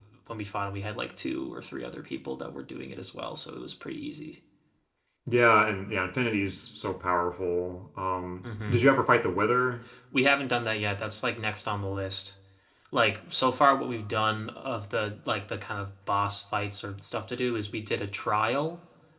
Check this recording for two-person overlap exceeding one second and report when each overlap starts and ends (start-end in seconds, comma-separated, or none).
none